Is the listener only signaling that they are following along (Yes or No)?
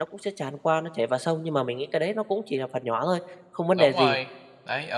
No